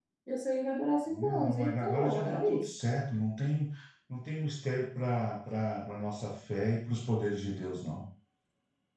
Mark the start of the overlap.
1.1 s

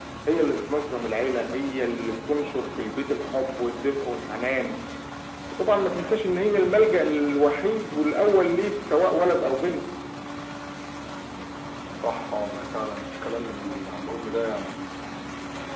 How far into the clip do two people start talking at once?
none

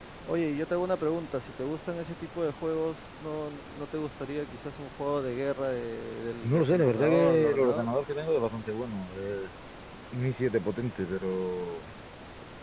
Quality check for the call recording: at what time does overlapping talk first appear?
6.4 s

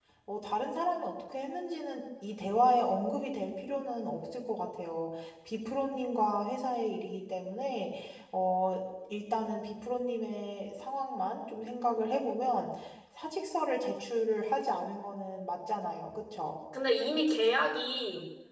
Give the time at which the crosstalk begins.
none

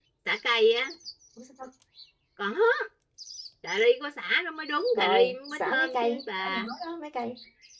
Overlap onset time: 4.9 s

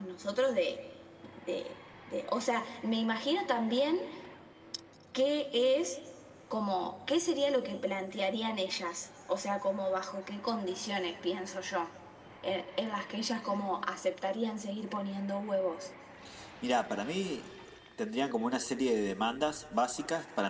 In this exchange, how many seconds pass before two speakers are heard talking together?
none

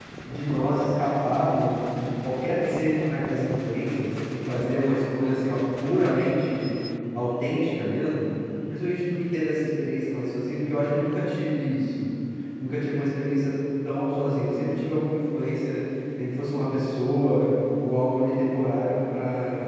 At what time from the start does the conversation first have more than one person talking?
none

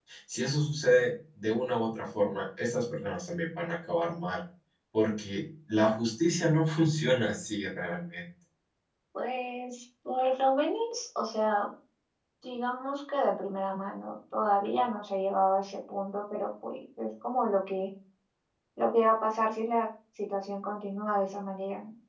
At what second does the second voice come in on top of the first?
none

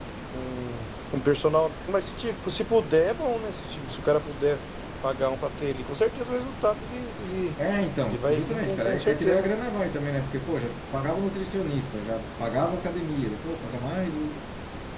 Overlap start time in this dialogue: 8.0 s

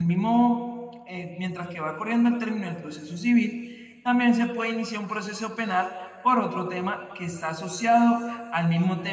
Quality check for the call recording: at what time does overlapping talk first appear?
none

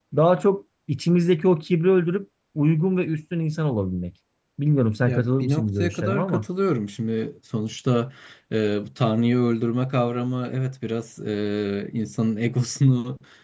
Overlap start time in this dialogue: 5.1 s

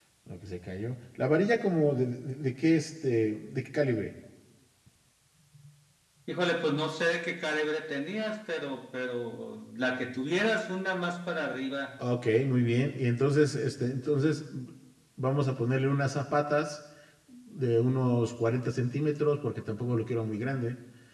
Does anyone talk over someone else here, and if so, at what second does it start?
none

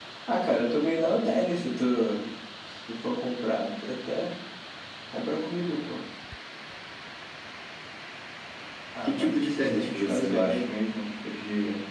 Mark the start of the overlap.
9.0 s

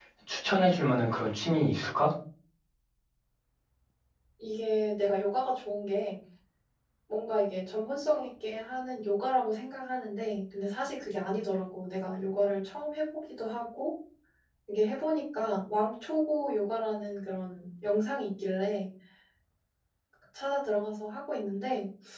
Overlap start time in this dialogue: none

